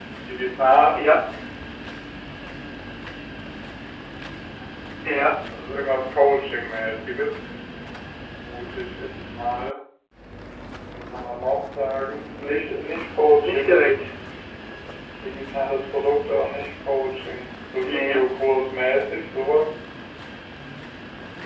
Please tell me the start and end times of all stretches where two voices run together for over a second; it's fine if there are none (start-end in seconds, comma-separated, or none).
none